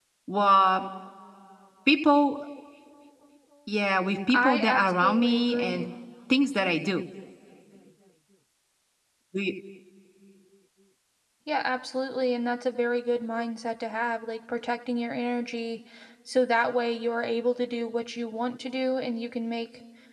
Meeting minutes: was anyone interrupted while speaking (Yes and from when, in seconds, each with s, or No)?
Yes, from 4.3 s